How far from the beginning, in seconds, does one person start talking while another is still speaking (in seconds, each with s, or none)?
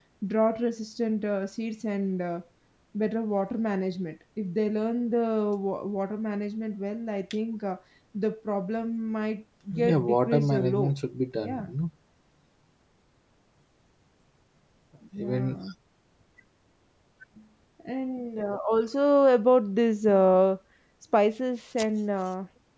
9.7 s